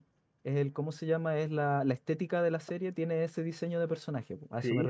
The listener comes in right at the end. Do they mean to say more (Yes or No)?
Yes